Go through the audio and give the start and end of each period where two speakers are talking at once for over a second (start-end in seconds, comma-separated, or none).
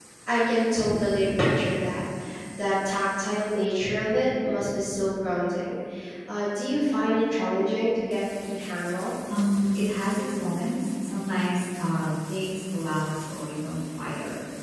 none